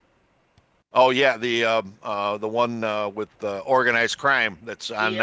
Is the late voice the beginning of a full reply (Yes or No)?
Yes